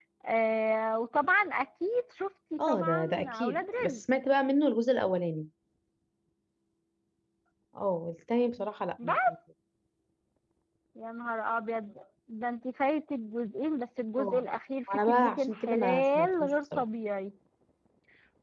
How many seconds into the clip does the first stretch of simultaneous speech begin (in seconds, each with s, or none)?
2.6 s